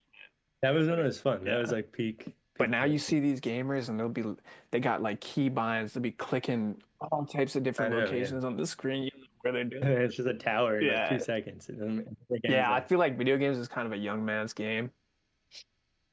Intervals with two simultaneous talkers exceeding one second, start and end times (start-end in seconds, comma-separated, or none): none